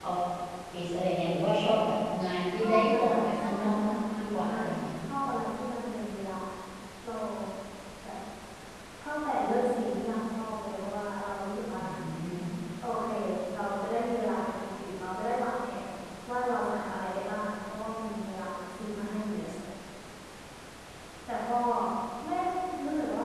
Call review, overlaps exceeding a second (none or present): present